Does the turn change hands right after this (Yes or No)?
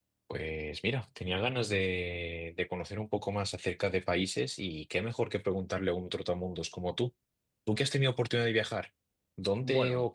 No